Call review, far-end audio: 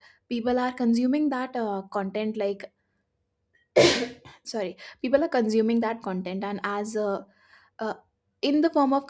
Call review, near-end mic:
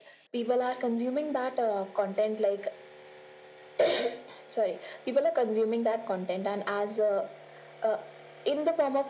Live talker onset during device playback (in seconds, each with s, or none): none